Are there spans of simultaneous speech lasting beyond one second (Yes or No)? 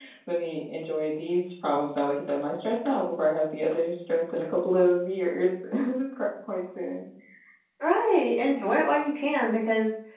No